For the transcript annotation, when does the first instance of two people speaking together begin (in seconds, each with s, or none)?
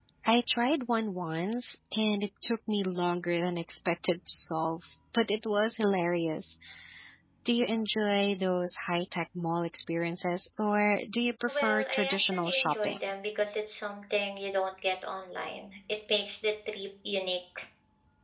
11.5 s